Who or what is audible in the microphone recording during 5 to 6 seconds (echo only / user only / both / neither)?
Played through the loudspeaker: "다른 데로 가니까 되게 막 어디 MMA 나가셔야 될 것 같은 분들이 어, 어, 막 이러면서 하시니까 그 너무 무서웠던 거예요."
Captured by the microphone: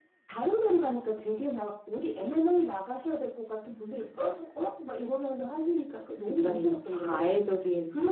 echo only